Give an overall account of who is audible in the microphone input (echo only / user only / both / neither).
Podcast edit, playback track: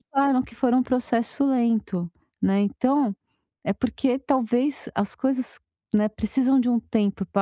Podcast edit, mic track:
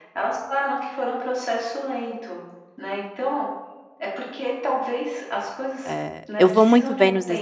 both